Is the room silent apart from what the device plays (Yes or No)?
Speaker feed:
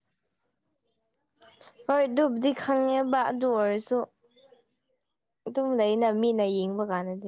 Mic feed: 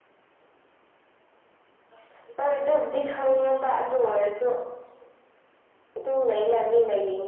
Yes